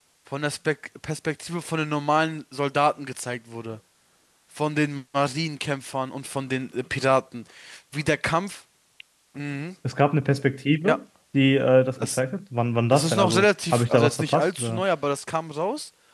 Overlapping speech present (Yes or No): Yes